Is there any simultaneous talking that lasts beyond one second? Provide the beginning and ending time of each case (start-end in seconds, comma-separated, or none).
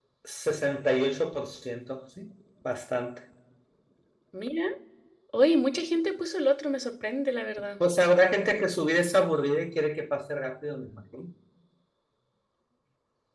none